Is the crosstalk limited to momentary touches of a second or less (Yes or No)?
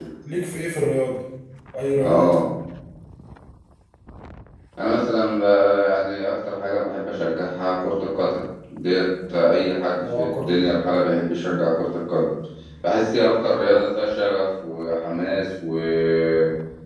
Yes